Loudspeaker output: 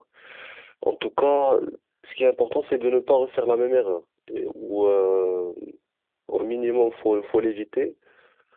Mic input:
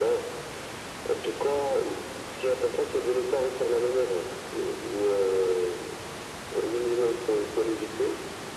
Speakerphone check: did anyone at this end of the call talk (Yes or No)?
No